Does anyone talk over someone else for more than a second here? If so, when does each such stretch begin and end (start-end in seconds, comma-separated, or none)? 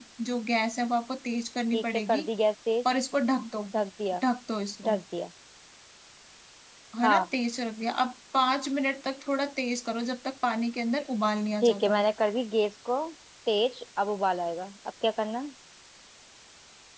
none